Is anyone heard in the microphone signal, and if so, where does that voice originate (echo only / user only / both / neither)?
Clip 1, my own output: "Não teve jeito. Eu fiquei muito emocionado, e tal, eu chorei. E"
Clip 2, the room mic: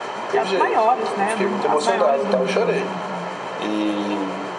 both